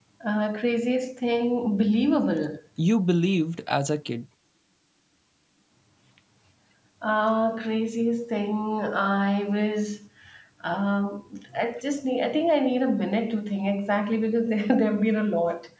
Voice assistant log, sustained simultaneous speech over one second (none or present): none